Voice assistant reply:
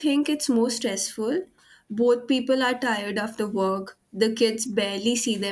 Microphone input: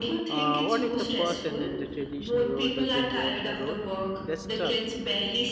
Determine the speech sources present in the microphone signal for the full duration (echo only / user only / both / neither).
both